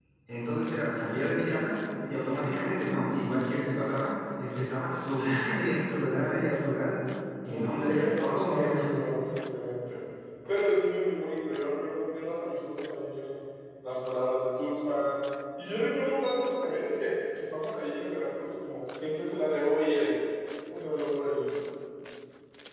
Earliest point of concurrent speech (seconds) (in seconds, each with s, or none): 7.4 s